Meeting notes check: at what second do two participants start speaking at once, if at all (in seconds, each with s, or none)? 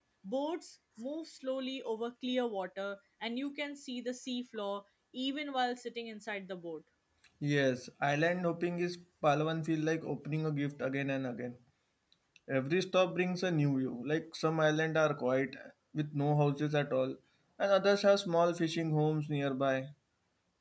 none